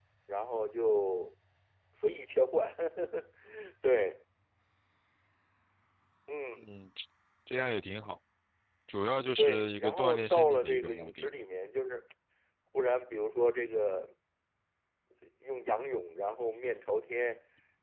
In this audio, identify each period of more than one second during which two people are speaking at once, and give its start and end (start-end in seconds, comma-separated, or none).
9.4-11.3